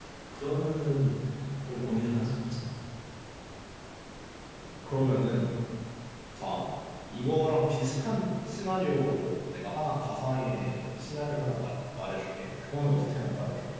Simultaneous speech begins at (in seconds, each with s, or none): none